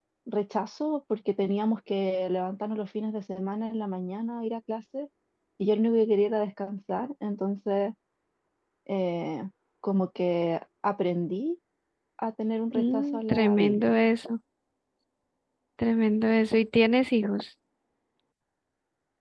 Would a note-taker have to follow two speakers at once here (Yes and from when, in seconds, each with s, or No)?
Yes, from 12.7 s